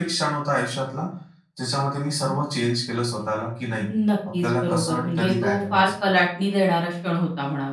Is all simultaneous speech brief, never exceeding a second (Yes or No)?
No